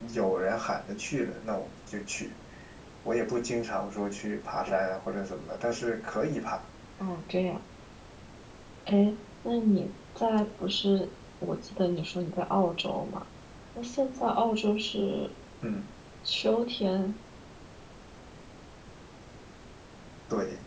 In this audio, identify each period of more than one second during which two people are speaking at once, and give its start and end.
none

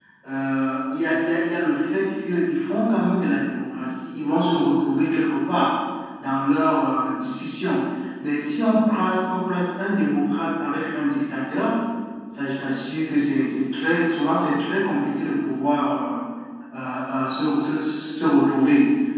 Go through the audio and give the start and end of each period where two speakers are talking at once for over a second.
none

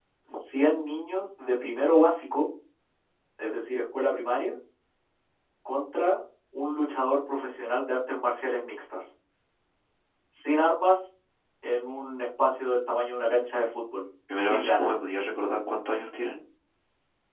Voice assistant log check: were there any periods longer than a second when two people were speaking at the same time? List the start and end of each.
none

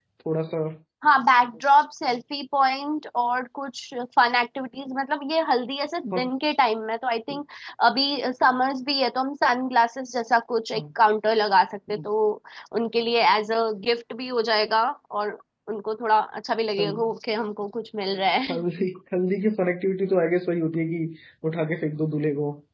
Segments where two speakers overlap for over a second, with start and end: none

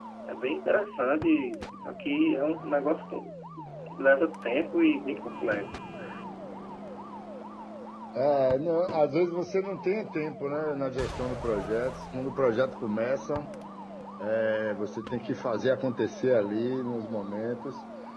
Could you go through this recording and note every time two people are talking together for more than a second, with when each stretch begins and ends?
none

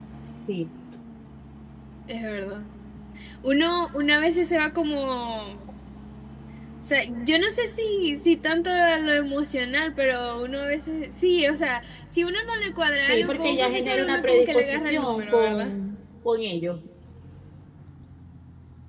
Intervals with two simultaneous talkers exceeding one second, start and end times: 13.1-15.7

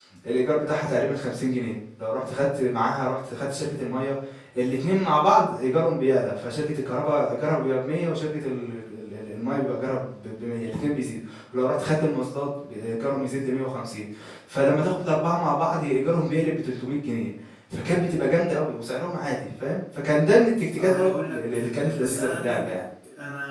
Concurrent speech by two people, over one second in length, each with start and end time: 20.8-22.8

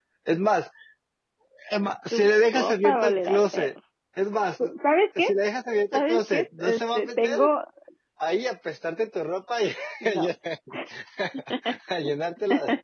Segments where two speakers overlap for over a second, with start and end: 2.1-3.7, 5.9-7.5

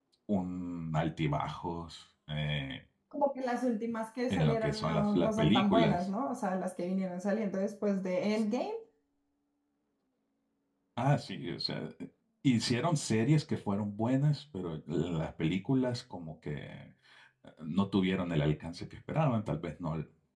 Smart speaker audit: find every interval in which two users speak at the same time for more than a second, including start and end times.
4.3-6.0

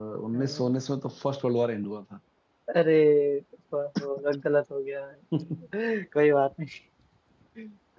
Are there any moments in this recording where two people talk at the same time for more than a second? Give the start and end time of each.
none

